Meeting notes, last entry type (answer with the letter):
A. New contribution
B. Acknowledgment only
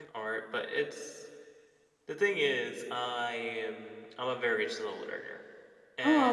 A